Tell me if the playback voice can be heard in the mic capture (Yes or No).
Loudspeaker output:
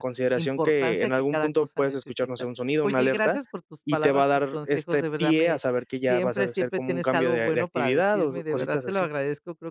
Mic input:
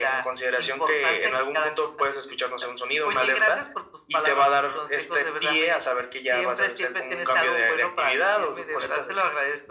Yes